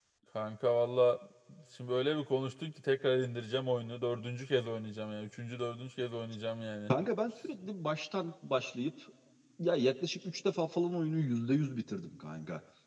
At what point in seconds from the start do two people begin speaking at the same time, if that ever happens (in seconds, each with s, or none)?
none